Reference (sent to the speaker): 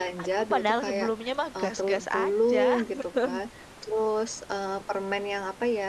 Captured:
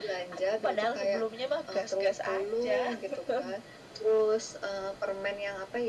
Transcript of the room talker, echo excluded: none

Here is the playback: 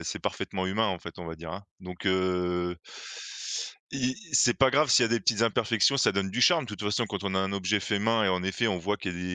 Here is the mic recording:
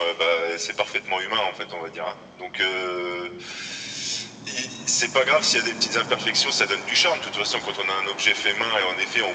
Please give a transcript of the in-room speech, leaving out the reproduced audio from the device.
none

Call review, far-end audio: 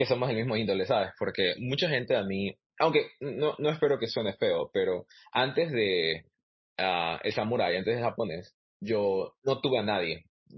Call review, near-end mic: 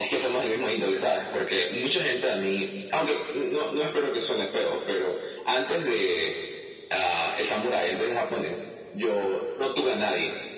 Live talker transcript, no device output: none

